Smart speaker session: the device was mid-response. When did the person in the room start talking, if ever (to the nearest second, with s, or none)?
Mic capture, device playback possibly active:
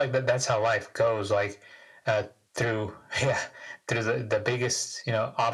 none